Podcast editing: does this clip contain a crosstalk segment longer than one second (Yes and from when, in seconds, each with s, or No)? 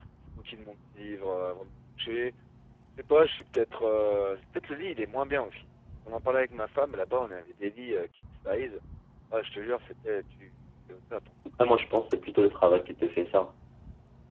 No